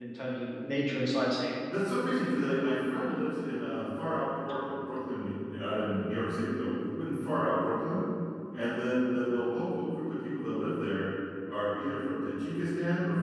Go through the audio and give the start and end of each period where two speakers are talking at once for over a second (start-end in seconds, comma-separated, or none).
none